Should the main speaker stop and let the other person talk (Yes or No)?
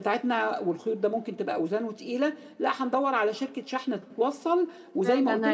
Yes